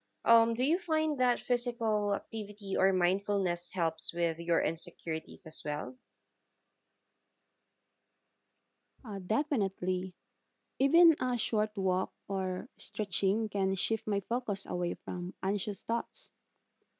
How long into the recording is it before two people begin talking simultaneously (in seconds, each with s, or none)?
none